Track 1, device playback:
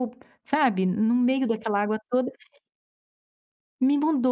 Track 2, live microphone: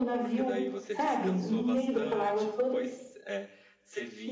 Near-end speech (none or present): present